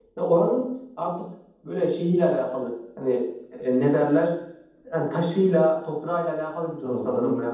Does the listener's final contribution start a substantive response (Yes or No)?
Yes